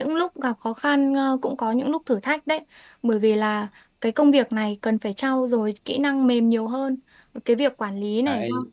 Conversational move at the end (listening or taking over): listening